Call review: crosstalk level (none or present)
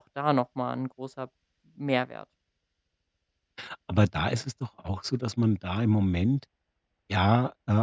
none